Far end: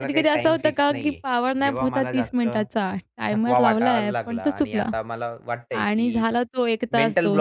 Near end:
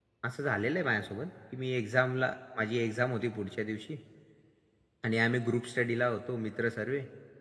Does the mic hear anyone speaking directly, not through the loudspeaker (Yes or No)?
Yes